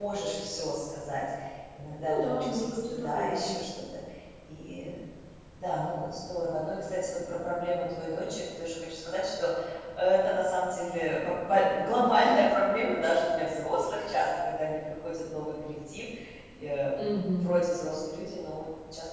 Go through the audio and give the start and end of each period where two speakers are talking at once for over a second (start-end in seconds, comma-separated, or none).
2.0-3.5